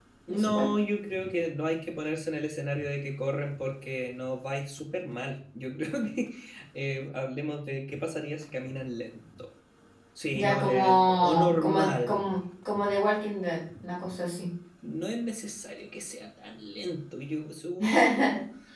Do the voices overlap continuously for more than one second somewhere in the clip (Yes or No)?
Yes